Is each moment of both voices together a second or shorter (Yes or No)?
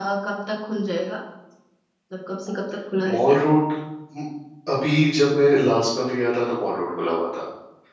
Yes